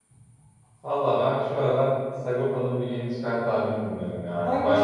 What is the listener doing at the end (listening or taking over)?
taking over